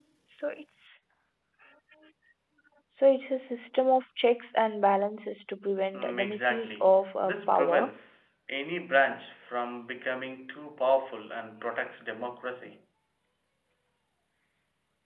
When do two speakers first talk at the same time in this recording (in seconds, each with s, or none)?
5.9 s